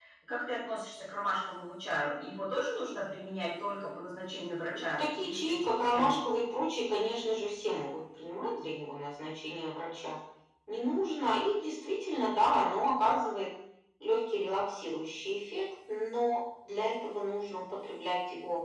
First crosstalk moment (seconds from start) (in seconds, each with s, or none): 4.7 s